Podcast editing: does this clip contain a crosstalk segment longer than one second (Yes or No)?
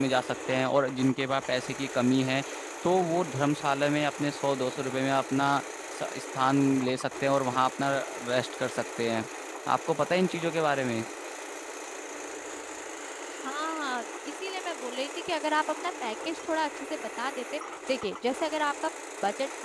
No